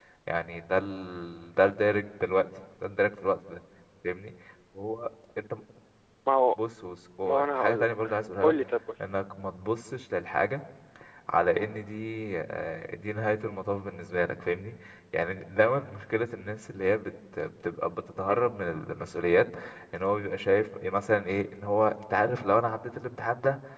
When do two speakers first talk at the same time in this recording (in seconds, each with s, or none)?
7.2 s